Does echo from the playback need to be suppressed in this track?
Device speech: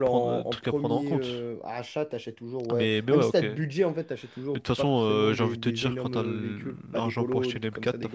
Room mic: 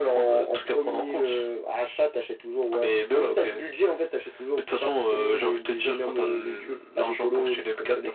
Yes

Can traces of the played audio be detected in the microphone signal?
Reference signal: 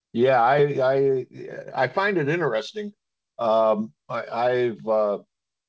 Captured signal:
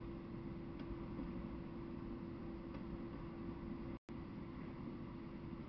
No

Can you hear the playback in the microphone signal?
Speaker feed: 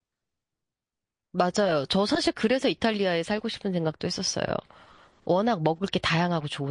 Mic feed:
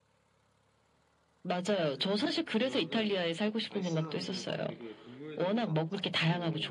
Yes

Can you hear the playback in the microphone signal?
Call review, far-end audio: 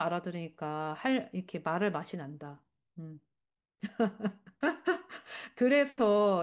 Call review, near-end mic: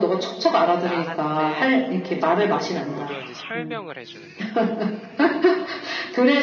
Yes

